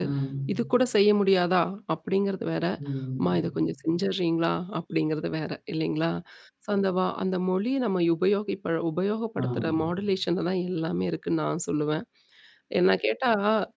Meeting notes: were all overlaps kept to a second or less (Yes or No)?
Yes